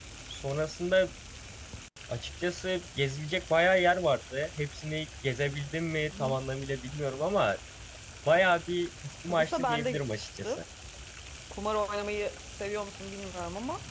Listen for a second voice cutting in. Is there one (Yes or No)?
Yes